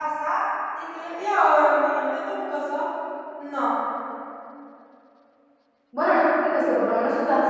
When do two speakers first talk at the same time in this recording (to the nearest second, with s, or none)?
none